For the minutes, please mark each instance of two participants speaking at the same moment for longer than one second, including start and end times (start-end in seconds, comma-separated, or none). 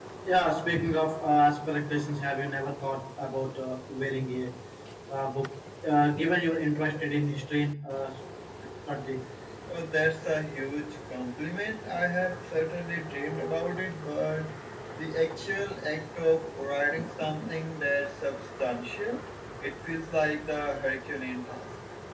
none